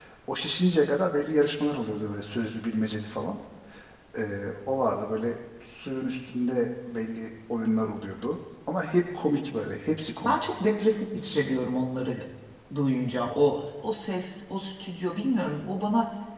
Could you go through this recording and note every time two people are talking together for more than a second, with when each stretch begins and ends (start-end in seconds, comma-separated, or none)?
none